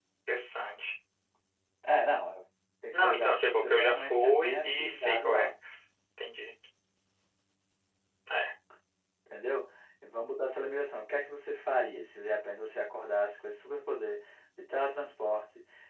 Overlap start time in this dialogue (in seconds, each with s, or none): 2.9 s